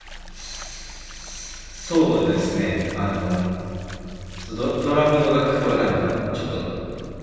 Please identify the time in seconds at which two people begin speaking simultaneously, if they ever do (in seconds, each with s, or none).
none